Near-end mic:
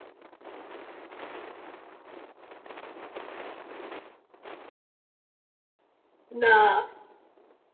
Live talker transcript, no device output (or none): 那